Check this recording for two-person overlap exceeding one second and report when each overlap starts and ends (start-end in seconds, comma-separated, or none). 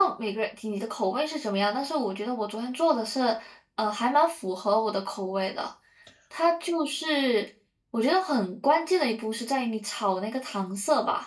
none